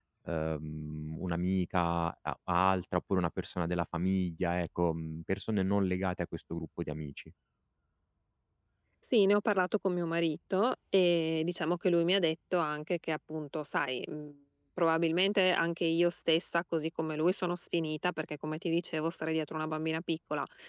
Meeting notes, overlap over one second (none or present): none